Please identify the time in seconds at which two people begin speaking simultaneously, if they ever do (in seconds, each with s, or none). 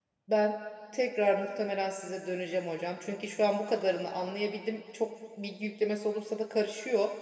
none